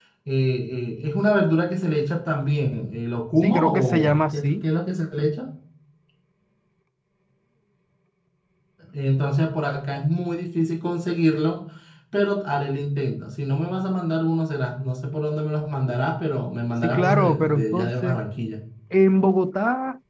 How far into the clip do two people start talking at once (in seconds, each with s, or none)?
3.4 s